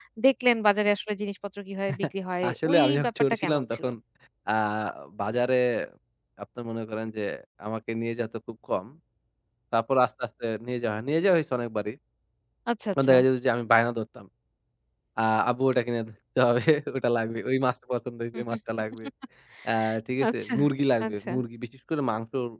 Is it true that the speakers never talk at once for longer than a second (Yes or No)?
No